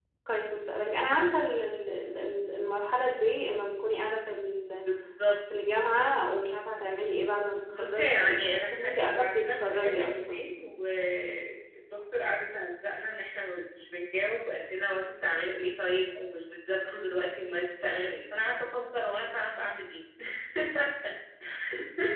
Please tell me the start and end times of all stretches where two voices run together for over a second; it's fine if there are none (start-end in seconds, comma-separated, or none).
7.7-10.4